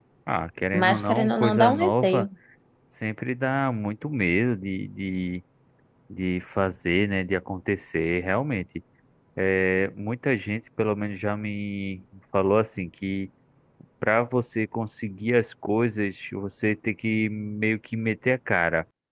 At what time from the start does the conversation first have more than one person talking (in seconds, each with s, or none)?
0.7 s